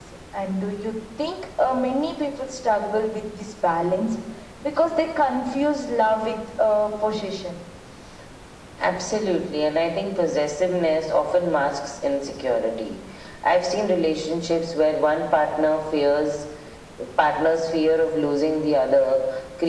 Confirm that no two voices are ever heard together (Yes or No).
Yes